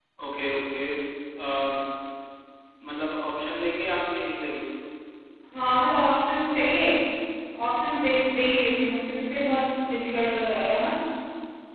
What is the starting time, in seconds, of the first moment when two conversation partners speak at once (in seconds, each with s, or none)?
none